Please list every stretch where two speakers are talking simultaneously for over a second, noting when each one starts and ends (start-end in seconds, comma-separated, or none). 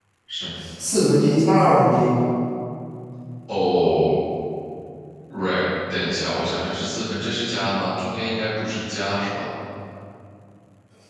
none